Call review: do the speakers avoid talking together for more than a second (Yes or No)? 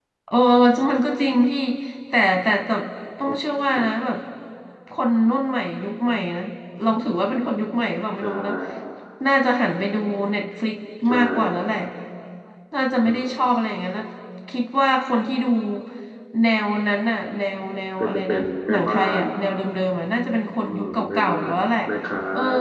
No